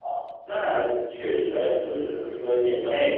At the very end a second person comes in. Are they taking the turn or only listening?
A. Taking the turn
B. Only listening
B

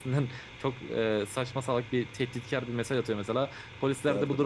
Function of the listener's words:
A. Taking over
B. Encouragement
B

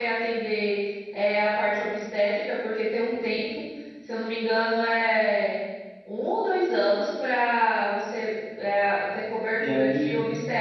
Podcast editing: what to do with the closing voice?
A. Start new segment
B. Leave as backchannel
B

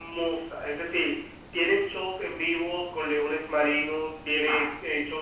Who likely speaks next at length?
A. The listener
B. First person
B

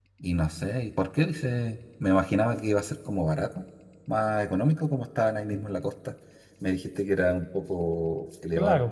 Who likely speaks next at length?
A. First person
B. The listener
B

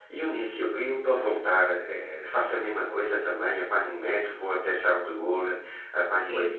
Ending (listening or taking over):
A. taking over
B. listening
A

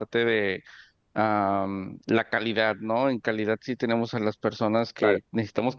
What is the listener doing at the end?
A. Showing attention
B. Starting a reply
A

